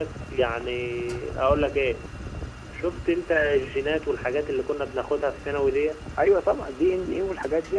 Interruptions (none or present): none